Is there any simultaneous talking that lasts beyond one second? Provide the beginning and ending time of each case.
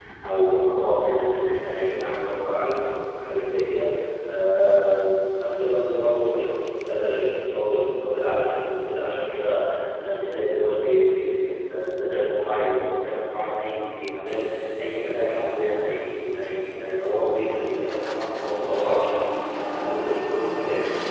none

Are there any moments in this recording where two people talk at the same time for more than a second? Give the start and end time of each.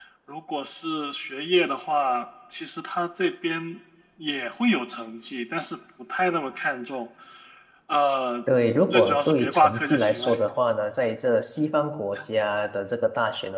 8.9-10.3

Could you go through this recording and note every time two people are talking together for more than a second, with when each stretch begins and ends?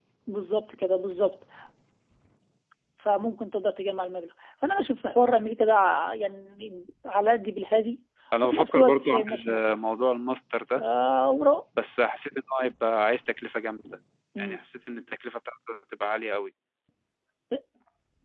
8.4-9.8

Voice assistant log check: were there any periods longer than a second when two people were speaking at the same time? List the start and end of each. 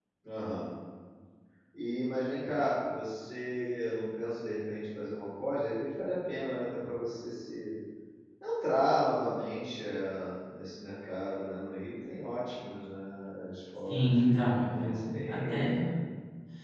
13.9-15.8

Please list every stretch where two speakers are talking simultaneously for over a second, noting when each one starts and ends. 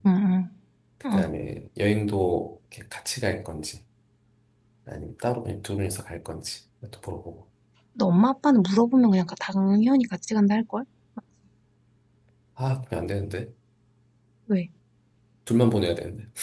none

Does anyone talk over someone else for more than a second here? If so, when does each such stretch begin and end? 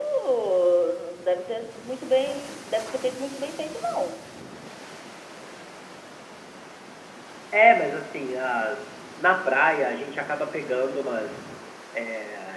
none

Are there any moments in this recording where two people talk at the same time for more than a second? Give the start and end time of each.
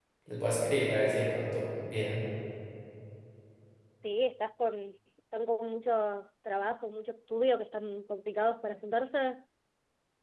none

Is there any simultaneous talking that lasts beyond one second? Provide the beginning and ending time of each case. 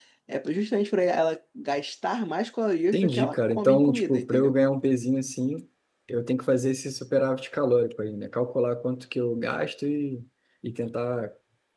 2.9-4.5

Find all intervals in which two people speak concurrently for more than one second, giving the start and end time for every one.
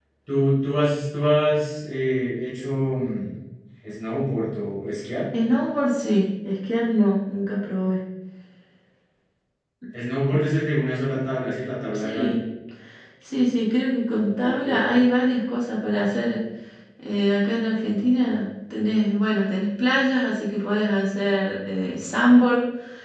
none

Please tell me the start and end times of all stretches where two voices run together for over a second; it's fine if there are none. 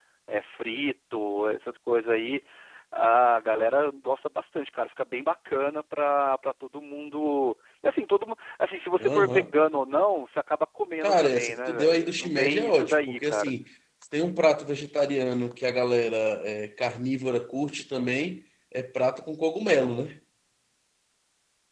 11.0-13.5

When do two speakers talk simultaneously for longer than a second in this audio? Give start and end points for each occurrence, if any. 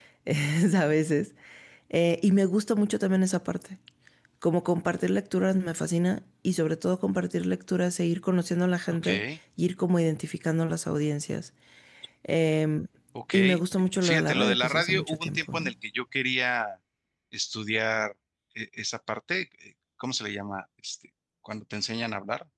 14.0-15.7

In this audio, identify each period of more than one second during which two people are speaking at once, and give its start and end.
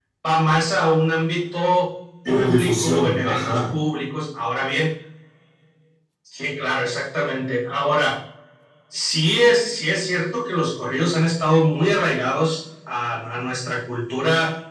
2.3-3.7

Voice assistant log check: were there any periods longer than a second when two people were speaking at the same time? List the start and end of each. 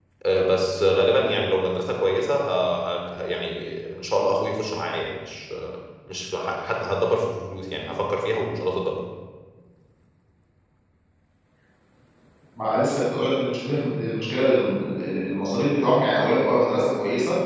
none

